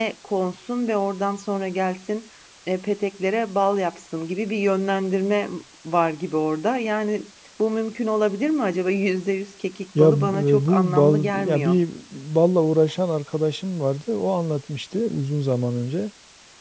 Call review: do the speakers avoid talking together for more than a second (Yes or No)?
No